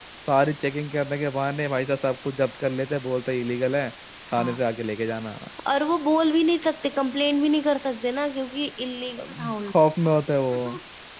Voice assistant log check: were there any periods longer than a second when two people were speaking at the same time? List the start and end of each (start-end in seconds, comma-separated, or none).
none